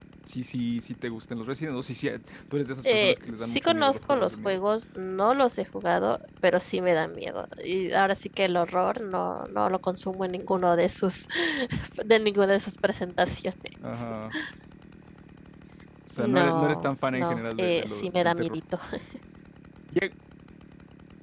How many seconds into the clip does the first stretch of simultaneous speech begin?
3 s

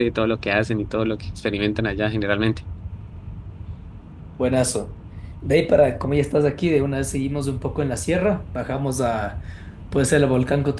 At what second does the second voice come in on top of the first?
none

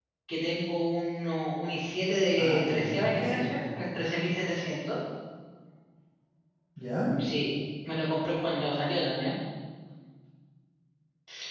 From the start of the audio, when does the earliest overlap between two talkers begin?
2 s

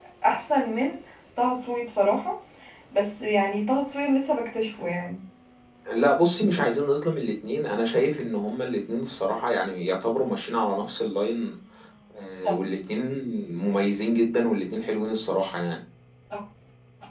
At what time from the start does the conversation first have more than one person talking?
none

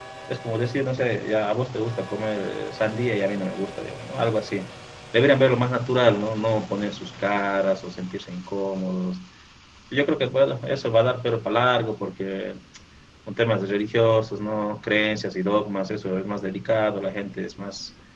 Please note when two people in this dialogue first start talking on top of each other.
none

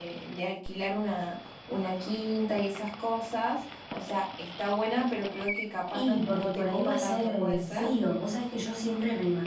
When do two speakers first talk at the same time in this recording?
6 s

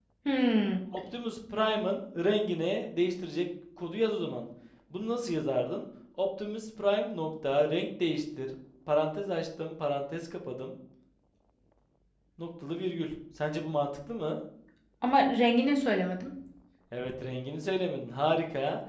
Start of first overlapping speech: none

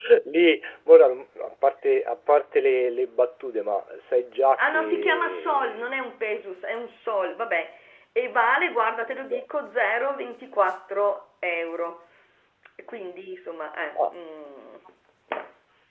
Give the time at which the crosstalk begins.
5 s

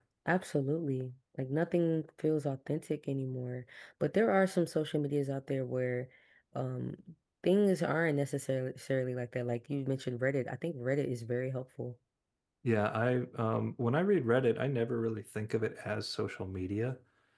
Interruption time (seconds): none

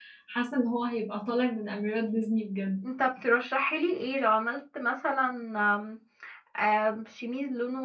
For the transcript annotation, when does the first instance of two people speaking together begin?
none

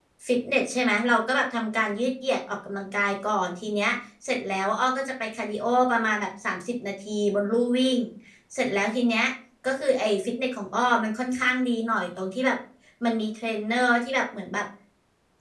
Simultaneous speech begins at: none

